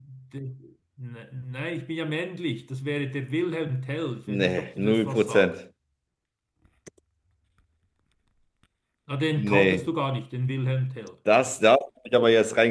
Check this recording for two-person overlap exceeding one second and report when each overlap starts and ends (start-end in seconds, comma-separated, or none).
4.3-5.5